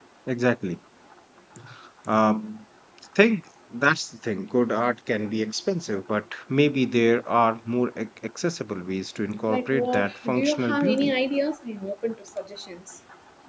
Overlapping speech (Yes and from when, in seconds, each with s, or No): Yes, from 9.5 s